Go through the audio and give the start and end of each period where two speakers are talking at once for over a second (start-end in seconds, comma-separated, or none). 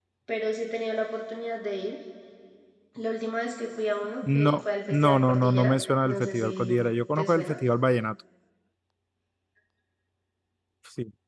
4.3-6.7